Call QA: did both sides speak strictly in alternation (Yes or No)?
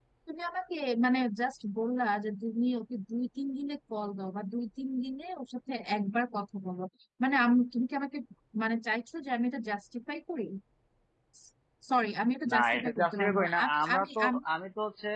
No